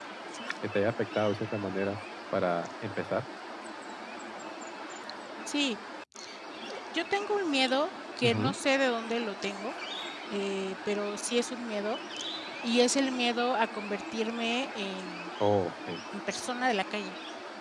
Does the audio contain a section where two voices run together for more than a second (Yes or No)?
No